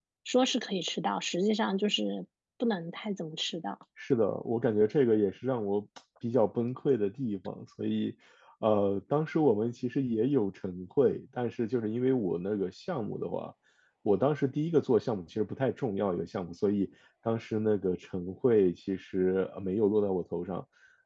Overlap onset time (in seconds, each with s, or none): none